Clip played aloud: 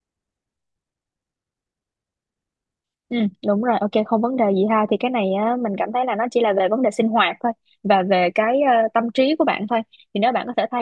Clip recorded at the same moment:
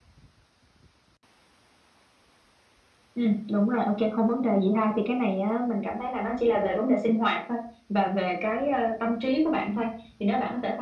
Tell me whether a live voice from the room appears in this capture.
No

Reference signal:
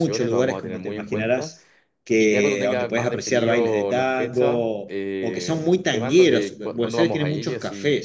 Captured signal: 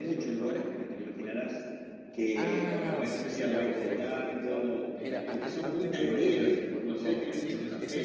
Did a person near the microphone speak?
Yes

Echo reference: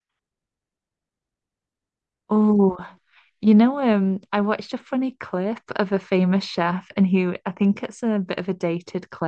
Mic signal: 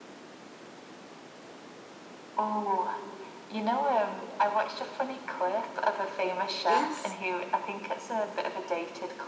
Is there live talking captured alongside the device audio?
Yes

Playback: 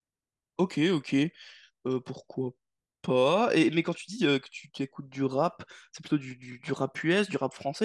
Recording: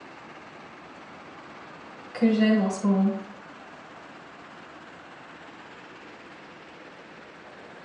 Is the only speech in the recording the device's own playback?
No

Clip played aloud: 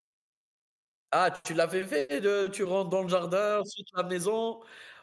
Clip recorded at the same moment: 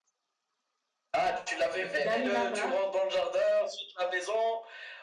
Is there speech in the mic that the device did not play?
Yes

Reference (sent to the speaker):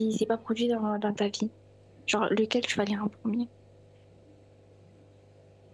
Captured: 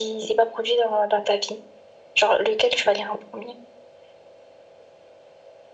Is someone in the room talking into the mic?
No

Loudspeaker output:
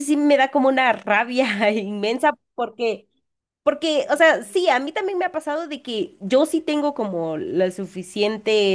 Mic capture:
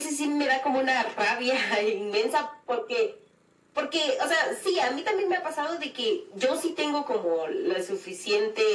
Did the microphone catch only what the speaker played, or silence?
Yes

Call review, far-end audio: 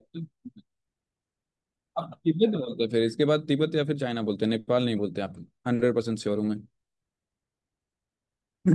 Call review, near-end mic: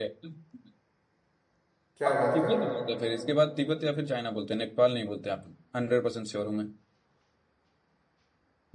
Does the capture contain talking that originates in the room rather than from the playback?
Yes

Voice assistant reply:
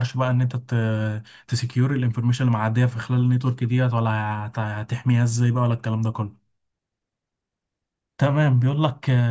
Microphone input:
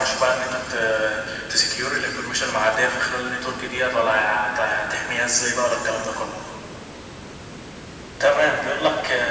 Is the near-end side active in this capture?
No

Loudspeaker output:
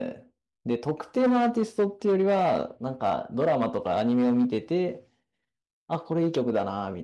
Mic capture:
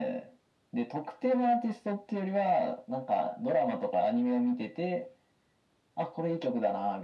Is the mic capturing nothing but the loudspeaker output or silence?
Yes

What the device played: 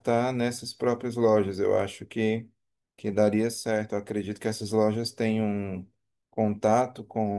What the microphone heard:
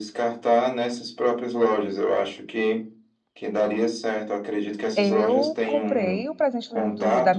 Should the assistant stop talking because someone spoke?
Yes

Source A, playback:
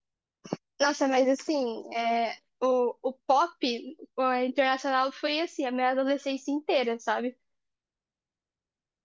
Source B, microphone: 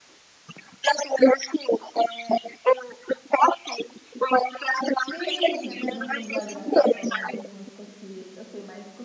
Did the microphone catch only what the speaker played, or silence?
No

